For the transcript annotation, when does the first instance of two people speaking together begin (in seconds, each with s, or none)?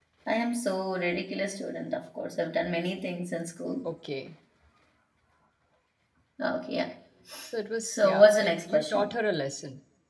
7.8 s